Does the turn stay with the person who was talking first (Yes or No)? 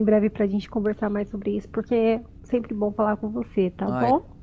No